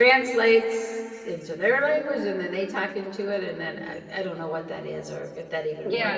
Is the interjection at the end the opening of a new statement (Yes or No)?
Yes